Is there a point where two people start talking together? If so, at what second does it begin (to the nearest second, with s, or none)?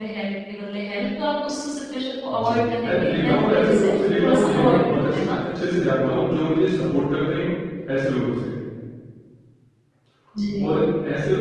2 s